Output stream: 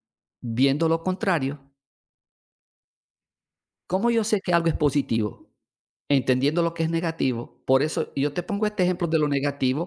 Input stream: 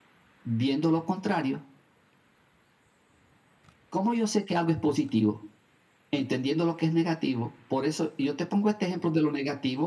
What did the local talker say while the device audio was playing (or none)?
none